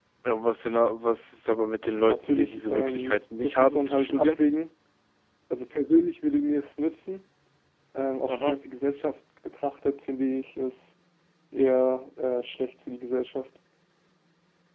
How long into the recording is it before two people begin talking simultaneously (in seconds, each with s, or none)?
2.0 s